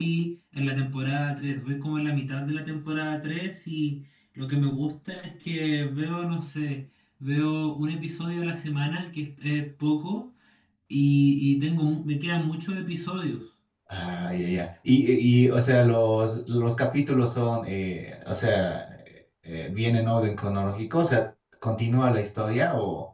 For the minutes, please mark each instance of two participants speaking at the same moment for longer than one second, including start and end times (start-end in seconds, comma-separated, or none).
none